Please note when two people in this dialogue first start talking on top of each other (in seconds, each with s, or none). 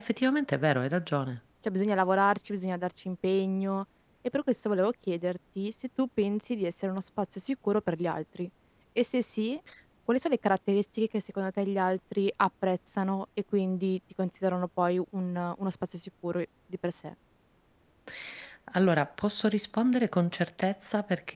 none